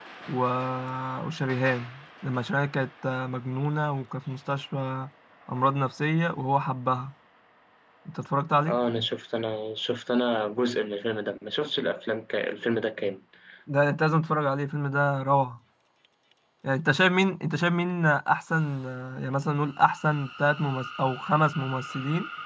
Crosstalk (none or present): none